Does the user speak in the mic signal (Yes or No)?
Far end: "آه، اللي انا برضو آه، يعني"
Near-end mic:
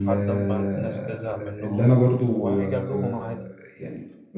Yes